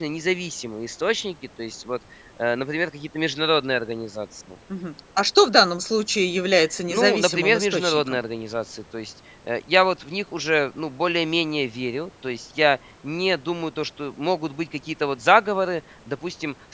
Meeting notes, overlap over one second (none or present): present